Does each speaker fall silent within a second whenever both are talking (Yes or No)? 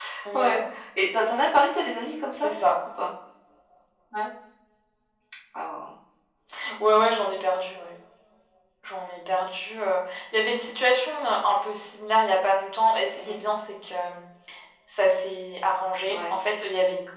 Yes